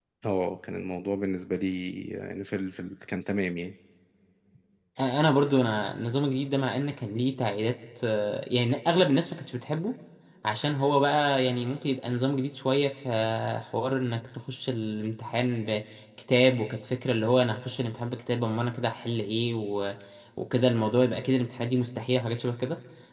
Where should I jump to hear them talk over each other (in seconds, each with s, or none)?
none